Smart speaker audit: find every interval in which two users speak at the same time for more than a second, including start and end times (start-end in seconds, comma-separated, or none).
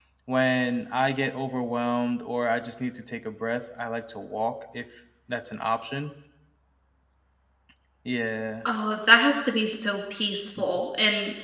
none